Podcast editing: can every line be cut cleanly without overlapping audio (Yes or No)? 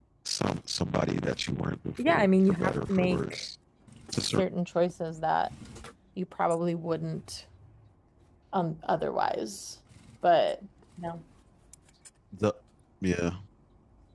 No